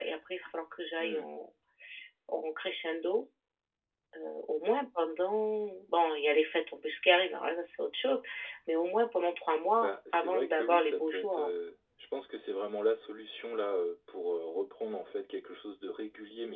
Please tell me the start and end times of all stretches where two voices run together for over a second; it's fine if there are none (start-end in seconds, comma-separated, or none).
9.8-11.5